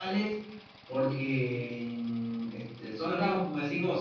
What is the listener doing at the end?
listening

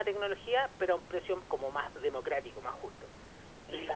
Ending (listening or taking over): taking over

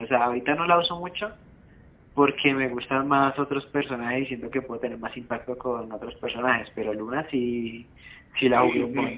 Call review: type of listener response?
taking over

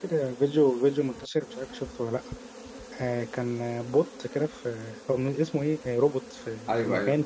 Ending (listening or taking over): taking over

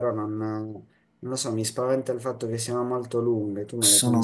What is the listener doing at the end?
taking over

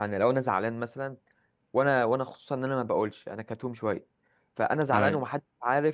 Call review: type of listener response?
listening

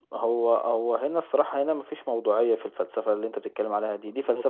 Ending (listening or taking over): listening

